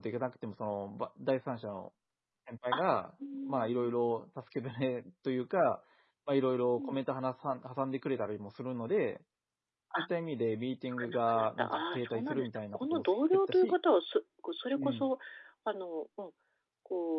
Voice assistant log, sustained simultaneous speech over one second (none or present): present